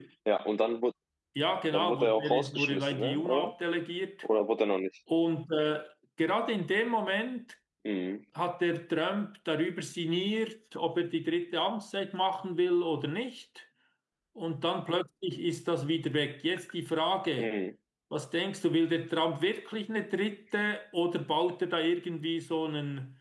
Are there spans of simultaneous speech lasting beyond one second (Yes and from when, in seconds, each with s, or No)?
Yes, from 1.7 s